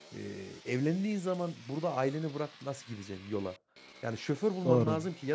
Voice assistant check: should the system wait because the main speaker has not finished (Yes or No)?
Yes